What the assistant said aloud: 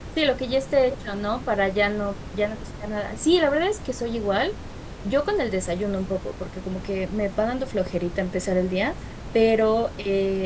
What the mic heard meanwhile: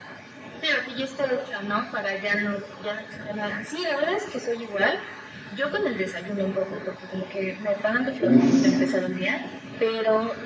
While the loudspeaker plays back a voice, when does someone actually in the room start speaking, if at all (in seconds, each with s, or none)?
8.2 s